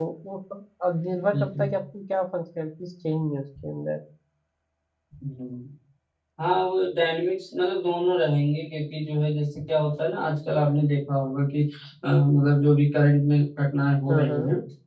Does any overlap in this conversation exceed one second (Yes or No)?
No